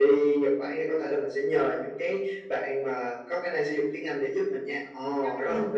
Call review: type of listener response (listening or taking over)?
taking over